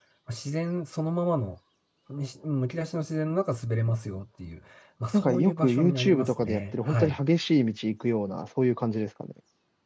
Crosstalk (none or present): present